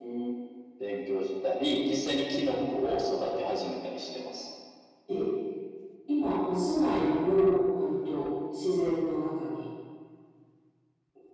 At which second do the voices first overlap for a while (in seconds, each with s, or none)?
none